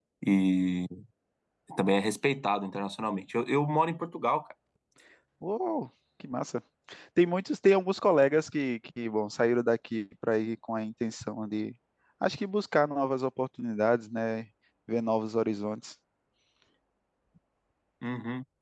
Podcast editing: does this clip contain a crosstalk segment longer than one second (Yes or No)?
No